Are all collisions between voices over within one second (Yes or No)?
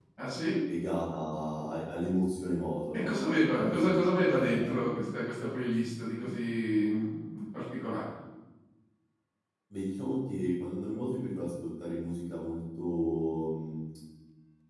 No